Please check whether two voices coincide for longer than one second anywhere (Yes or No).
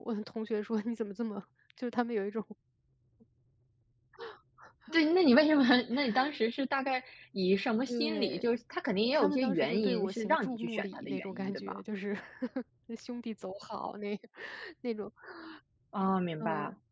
Yes